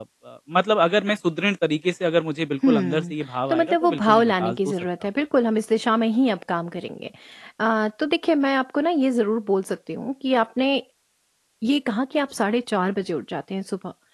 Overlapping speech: Yes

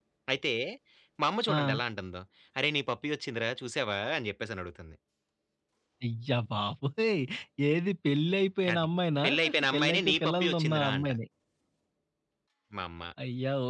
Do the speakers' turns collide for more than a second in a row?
Yes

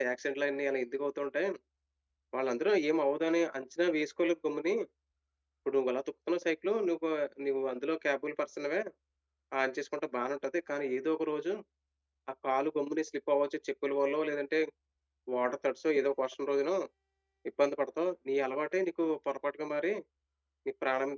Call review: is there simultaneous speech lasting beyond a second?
No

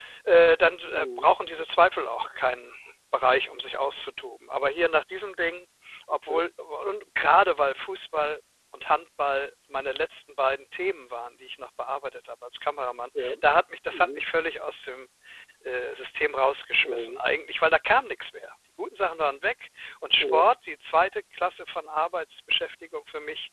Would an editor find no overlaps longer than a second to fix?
Yes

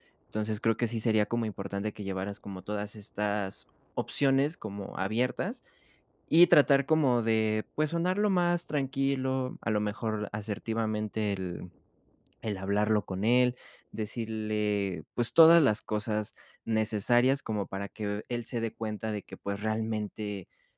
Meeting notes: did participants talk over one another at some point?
No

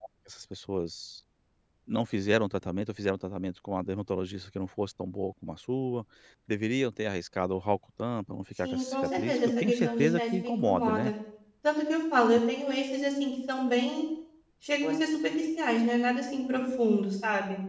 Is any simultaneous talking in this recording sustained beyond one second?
Yes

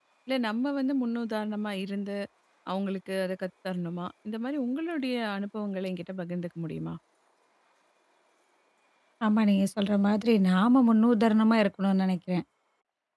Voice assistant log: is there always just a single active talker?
Yes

